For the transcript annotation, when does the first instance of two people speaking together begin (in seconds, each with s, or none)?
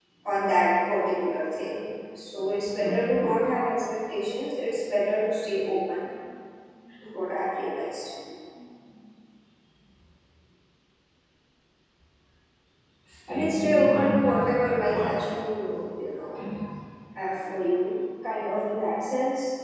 13.3 s